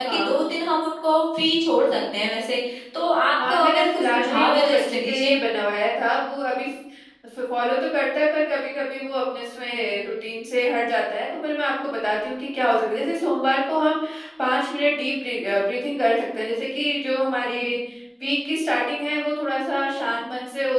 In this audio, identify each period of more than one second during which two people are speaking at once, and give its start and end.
3.4-5.3

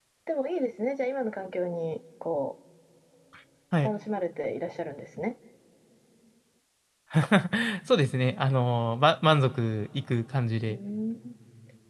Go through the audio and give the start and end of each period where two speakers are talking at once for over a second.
none

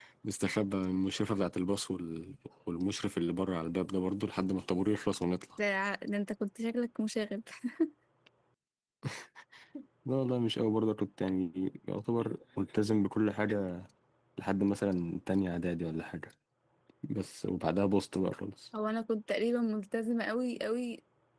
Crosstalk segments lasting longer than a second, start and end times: none

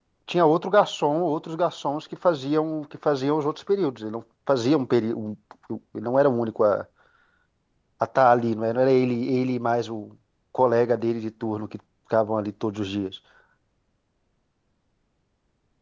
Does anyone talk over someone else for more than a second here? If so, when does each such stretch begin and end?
none

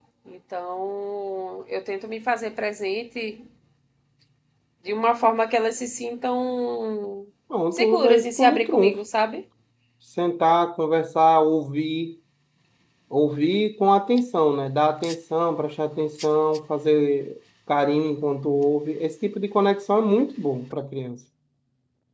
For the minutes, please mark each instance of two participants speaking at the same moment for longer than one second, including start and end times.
7.7-9.0

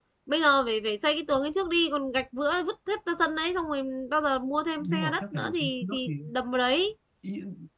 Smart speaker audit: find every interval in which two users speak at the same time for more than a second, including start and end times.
4.8-6.1

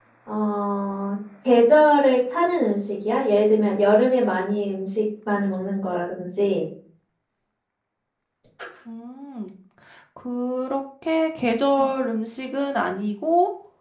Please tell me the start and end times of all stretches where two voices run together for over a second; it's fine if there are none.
none

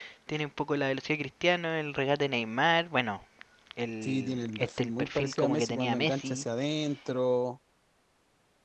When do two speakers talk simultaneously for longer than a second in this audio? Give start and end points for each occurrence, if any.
4.0-6.4

